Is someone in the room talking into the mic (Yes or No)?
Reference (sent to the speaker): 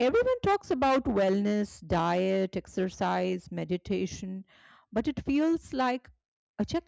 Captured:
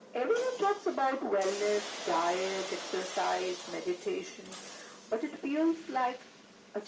No